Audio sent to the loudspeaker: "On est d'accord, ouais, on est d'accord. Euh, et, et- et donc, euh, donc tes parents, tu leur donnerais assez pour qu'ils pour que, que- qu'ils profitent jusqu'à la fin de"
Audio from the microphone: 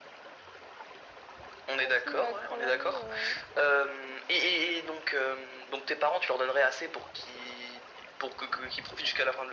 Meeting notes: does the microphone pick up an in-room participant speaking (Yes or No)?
Yes